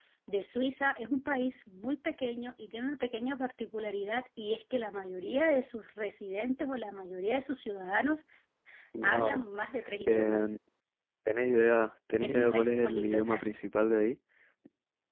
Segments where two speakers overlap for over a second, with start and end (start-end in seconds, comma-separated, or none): 12.2-13.4